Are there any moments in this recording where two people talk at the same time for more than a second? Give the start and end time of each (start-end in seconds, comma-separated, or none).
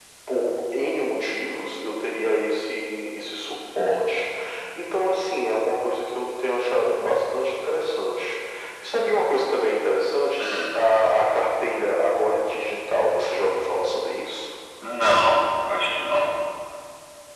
none